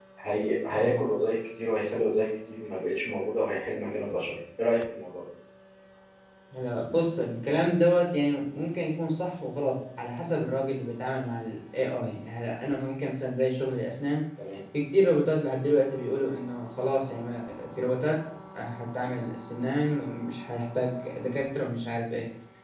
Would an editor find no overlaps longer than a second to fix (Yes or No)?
Yes